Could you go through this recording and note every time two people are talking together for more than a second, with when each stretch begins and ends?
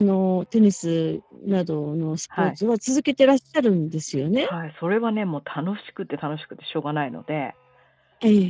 none

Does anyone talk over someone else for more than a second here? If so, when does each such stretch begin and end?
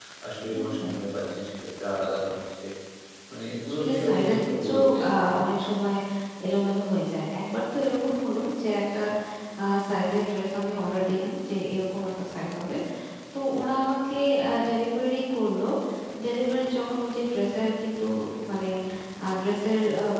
3.7-5.0

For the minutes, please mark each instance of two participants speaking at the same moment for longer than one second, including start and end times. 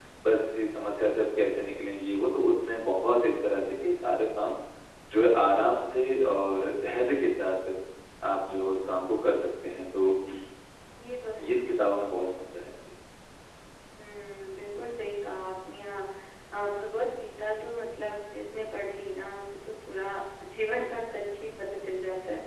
none

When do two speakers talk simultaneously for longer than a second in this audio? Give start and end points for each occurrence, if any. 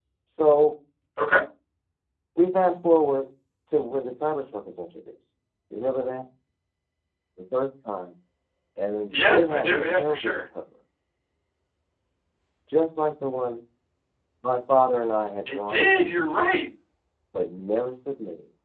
9.1-10.4

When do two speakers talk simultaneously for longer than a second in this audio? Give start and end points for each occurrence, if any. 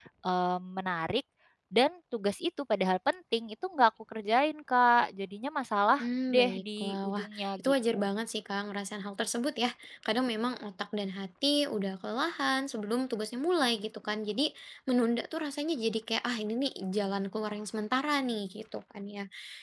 6.0-8.0

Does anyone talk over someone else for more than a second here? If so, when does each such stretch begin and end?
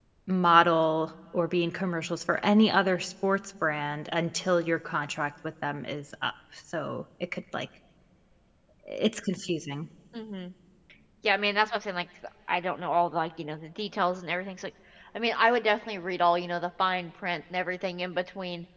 none

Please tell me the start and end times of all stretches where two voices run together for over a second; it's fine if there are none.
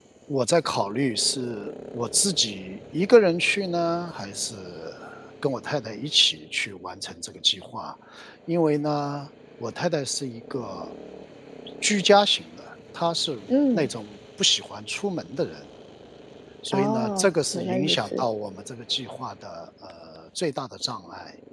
16.7-18.2

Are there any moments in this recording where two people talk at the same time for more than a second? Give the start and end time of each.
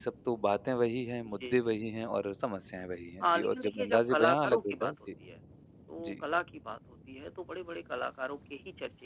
3.2-4.9

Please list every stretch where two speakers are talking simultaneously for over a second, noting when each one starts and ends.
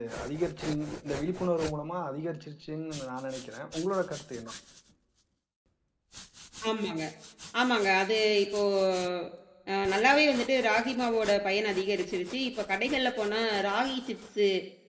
none

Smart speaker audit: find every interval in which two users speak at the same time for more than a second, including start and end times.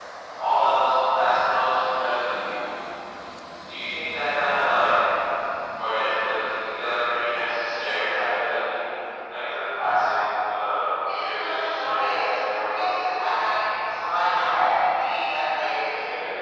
11.0-12.9

